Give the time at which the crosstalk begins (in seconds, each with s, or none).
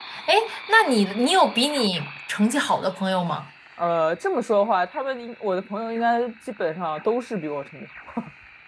none